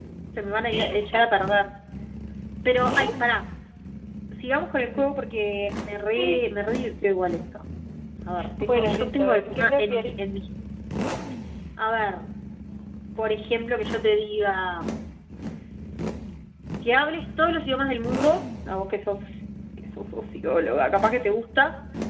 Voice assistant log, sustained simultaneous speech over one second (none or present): present